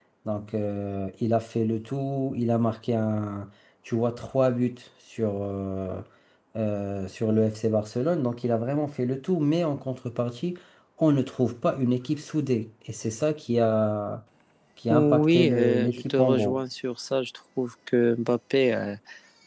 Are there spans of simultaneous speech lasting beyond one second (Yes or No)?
Yes